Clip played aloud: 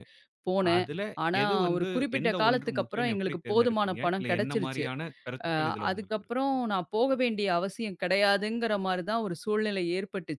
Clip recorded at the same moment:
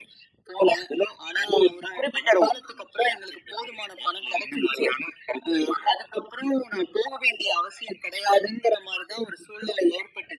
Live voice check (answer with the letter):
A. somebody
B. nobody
B